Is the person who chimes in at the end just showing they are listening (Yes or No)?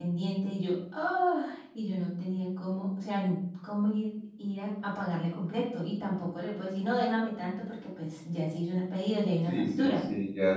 No